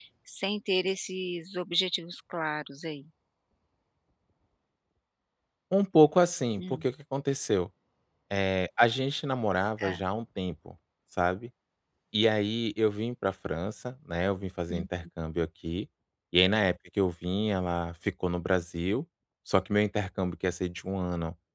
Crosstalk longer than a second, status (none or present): none